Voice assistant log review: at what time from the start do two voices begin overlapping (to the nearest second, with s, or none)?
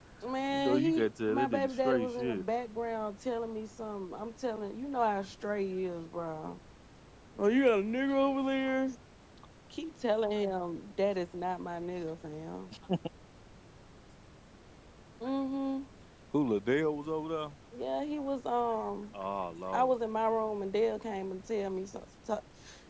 1 s